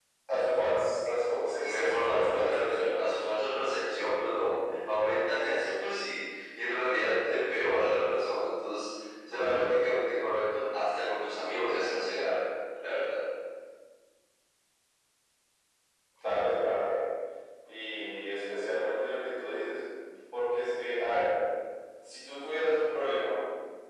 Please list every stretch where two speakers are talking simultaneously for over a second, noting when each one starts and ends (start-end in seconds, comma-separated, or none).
1.6-2.9